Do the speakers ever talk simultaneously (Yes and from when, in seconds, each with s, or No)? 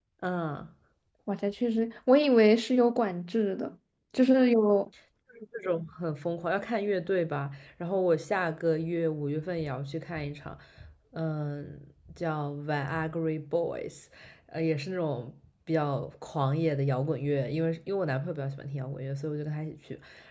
No